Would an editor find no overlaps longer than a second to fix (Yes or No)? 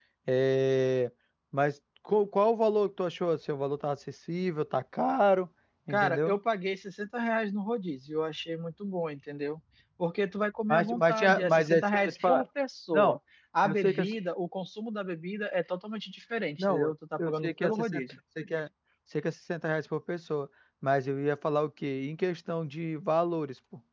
No